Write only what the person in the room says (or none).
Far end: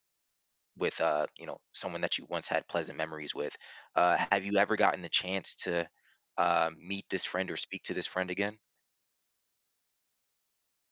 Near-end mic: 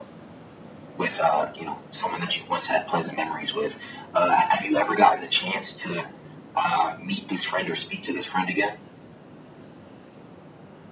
none